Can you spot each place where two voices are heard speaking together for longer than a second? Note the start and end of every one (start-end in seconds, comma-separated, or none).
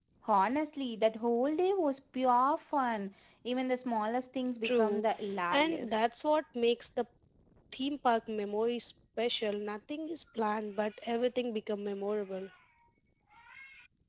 none